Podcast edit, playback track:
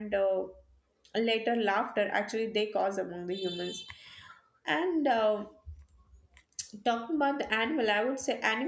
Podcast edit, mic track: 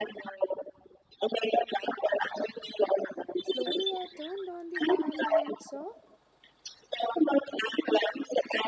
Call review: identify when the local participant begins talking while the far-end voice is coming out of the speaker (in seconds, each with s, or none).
3.4 s